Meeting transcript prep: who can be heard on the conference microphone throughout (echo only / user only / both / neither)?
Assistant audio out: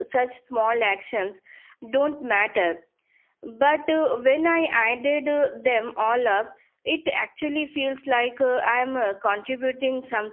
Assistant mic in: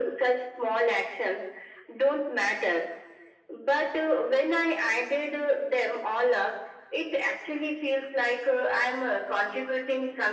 echo only